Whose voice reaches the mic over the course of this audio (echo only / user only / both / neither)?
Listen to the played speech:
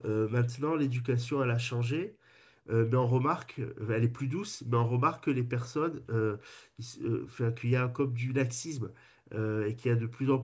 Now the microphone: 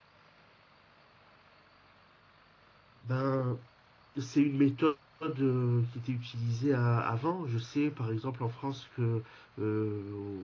user only